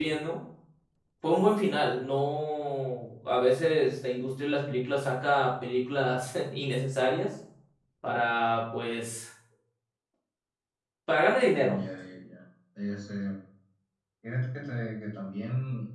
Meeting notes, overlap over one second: none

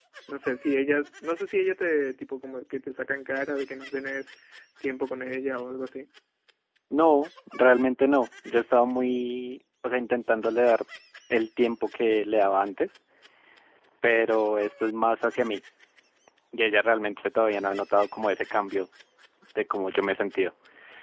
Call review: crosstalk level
none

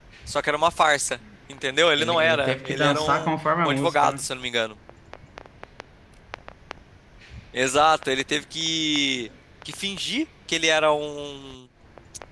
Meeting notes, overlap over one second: present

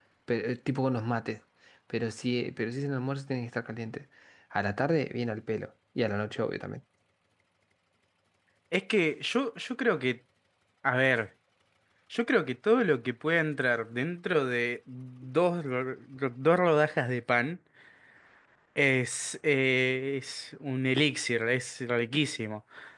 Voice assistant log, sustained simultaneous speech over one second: none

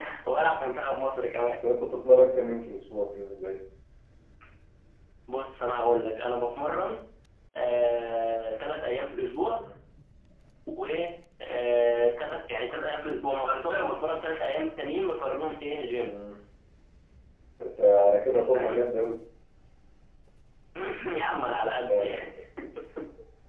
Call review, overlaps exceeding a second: none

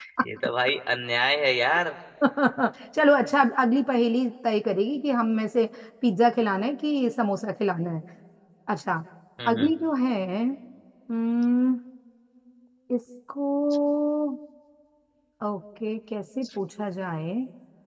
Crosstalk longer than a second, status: none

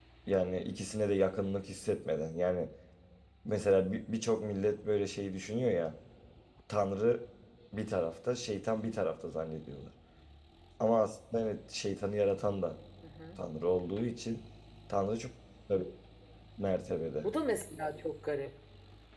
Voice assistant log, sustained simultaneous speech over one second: none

